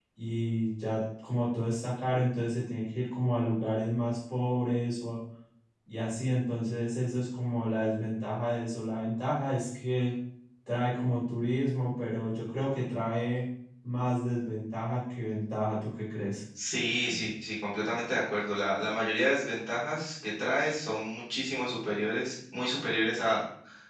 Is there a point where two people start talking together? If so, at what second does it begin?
none

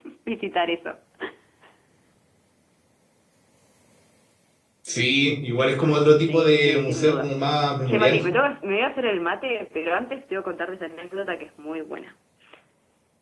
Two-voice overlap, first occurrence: 6.0 s

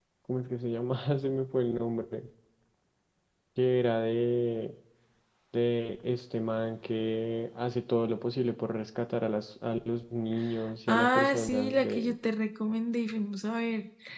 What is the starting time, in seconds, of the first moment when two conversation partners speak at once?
10.9 s

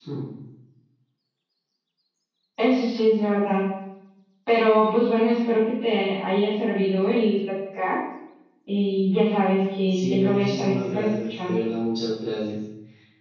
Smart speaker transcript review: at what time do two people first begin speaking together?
9.9 s

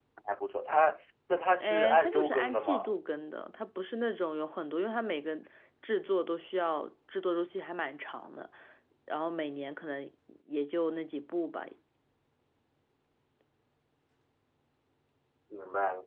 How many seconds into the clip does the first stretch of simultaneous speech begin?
1.6 s

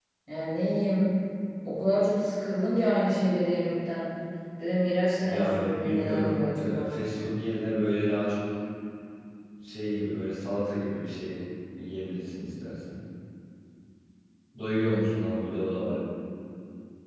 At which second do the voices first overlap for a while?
5.2 s

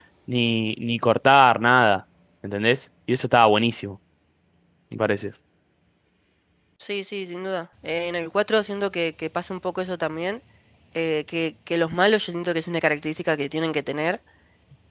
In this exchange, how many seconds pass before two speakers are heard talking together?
none

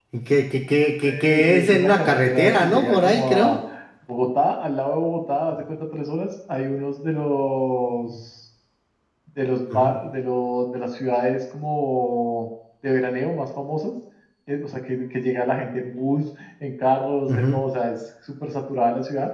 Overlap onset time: 1.0 s

